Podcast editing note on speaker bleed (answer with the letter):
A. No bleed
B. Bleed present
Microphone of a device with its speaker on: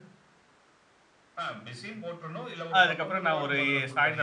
B